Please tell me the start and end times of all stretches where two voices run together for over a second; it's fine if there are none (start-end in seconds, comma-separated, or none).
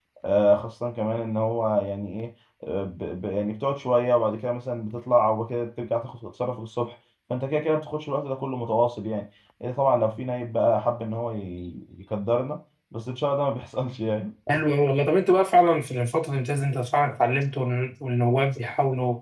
none